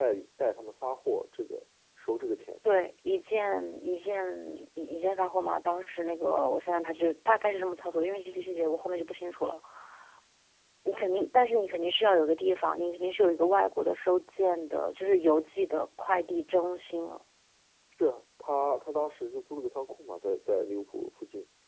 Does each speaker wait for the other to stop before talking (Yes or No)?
Yes